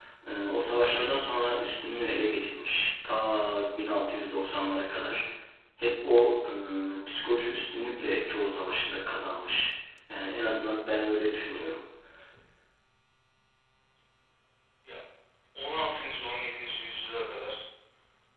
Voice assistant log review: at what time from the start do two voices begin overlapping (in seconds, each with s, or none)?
none